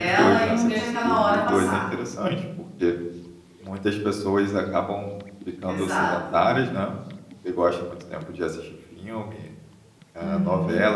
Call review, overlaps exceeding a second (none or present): present